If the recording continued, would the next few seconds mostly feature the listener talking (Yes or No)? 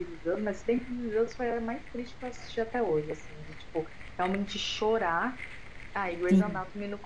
No